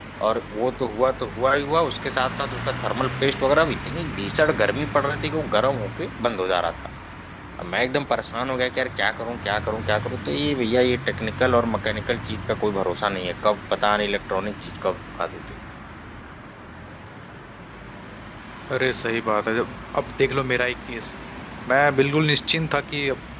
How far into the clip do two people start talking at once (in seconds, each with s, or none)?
none